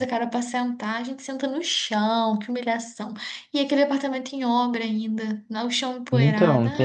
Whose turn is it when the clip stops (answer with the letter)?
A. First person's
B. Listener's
B